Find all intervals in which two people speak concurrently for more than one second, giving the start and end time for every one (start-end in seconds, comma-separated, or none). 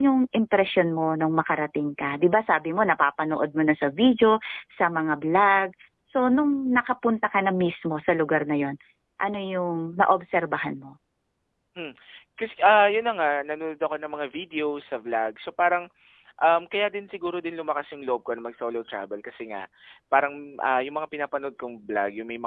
none